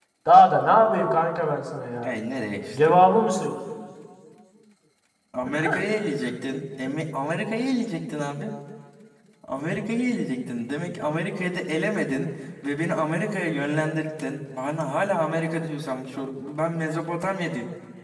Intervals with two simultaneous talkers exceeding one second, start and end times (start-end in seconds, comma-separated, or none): none